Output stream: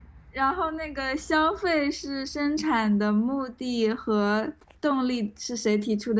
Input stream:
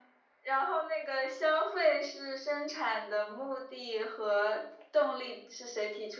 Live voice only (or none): none